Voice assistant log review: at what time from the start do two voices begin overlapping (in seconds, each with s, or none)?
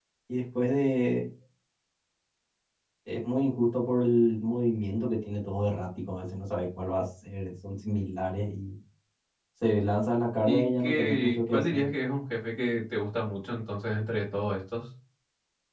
10.4 s